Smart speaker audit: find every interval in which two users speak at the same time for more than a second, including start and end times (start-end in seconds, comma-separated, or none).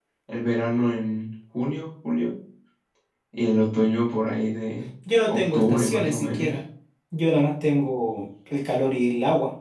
5.3-6.6